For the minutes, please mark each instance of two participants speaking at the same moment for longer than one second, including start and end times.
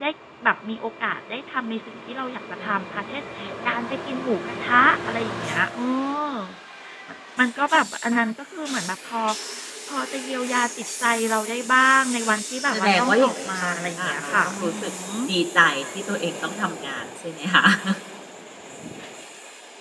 12.7-14.9

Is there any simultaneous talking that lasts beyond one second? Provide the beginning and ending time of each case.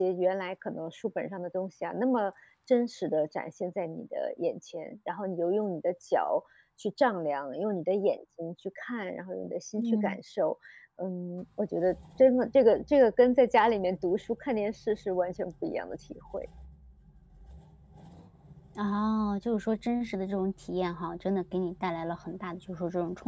none

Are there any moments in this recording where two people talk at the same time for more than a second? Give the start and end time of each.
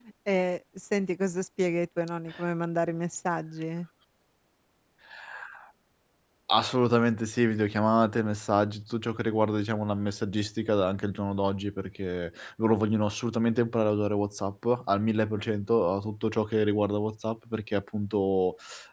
none

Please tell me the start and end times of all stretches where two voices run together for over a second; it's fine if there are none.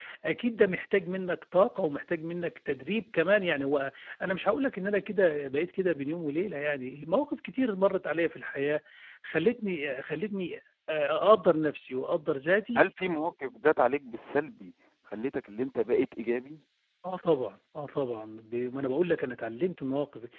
none

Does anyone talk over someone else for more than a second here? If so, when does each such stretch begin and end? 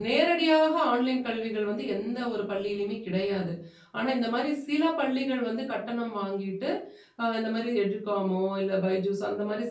none

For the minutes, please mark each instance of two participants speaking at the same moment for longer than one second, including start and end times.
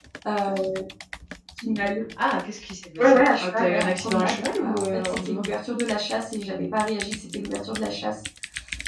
3.0-5.4

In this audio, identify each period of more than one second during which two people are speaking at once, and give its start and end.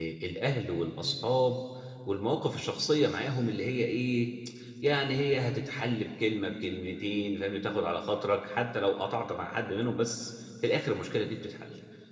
none

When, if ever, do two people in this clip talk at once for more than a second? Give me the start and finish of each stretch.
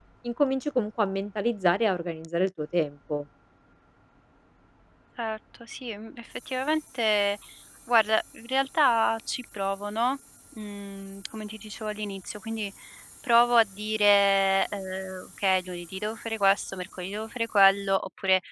none

